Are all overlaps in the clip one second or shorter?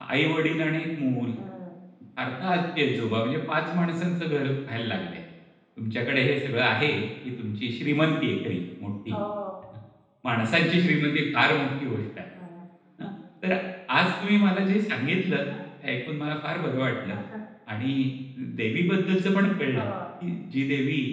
Yes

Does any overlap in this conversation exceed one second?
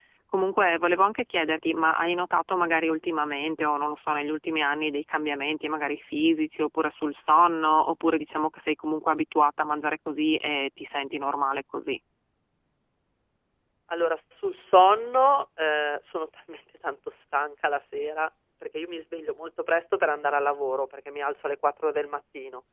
No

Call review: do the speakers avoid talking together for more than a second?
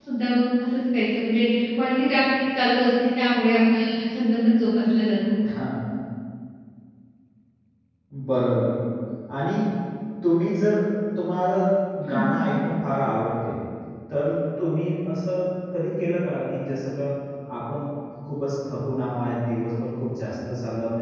Yes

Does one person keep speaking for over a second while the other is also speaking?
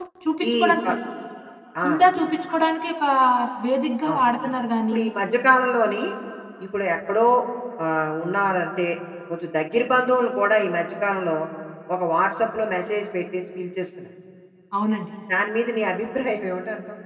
No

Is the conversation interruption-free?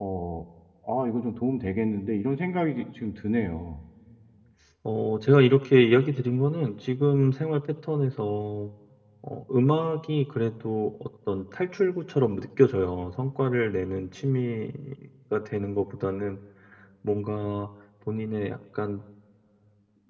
Yes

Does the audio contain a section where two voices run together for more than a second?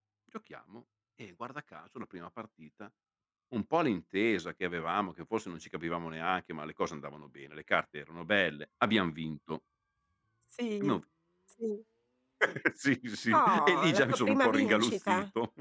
Yes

